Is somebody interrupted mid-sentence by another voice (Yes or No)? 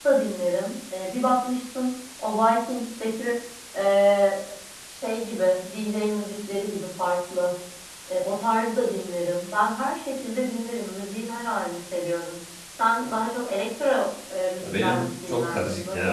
Yes